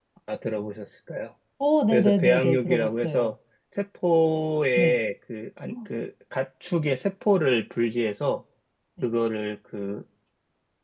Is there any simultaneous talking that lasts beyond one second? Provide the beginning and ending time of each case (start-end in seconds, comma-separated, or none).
1.9-3.3